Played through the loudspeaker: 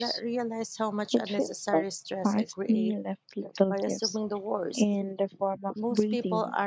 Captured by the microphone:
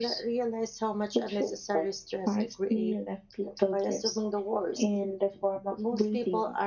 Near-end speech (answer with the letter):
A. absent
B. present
A